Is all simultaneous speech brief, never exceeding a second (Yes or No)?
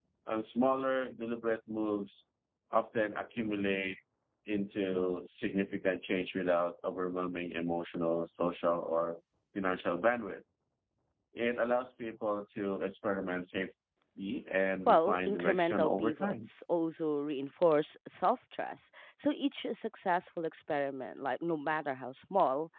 No